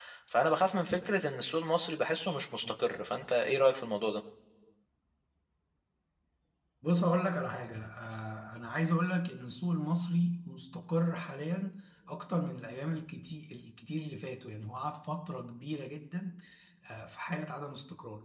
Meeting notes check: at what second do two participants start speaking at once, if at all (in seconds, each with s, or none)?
none